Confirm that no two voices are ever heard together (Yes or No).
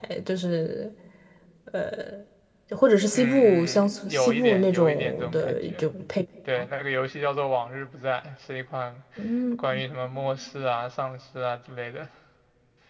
No